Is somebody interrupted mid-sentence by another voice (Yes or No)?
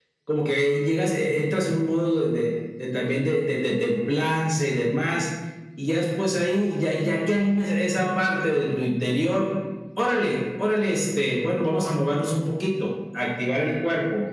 No